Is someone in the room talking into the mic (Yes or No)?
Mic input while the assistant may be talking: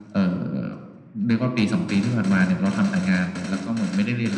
No